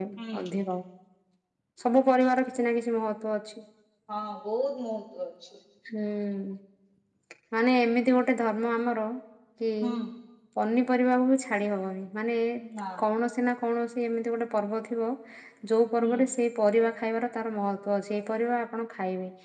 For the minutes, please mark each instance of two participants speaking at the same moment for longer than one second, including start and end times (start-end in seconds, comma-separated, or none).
none